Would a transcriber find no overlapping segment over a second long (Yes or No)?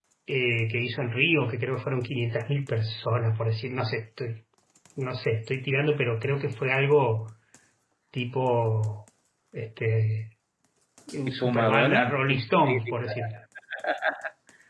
No